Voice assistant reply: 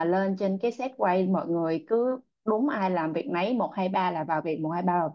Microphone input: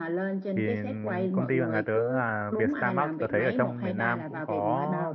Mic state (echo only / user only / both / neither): both